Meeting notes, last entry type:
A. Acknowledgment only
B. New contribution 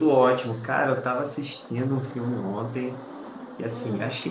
A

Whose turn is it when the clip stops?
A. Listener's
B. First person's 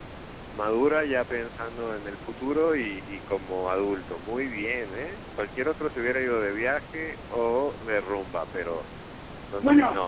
A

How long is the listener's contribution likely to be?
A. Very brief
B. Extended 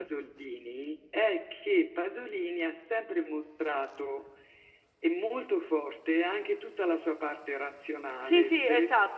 B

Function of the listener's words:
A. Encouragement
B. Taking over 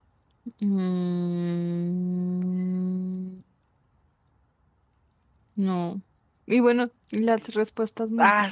B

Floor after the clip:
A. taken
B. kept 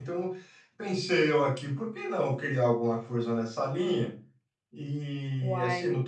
B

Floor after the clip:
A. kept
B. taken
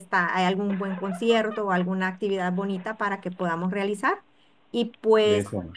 A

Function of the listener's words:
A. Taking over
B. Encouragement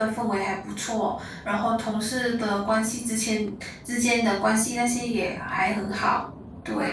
A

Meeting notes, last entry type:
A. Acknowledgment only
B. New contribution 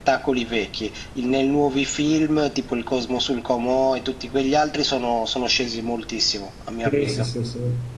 B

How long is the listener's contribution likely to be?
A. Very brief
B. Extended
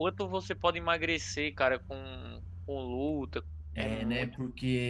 B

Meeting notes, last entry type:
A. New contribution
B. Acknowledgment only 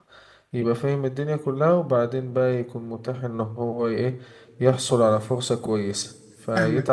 A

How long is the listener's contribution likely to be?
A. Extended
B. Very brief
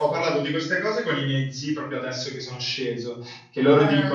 B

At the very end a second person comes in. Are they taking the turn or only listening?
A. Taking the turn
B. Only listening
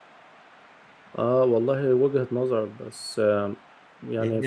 B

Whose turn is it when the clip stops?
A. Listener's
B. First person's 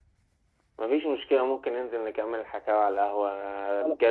B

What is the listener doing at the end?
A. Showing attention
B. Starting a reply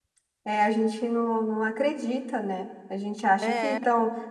A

